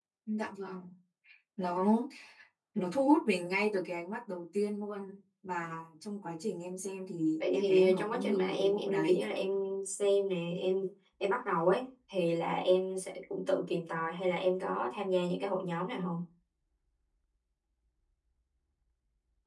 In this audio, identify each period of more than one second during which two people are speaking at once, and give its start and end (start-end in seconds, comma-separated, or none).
7.5-9.2